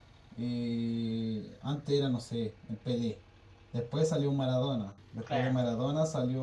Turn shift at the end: No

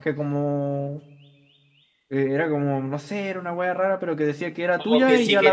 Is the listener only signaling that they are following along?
No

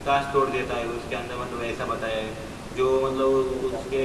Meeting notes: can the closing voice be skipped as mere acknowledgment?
Yes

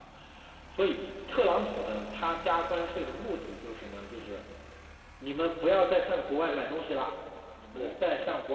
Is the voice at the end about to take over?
No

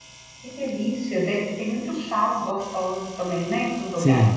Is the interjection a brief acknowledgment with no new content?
No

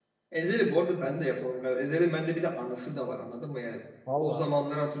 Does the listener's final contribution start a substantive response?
No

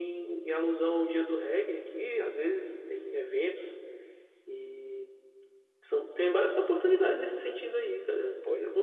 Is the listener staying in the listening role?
No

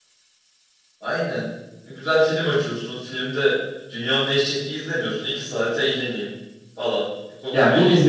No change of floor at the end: No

